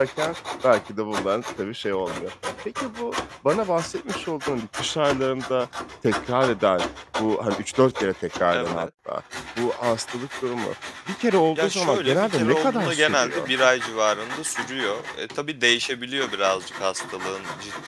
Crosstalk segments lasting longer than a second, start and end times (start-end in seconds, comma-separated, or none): 11.6-13.5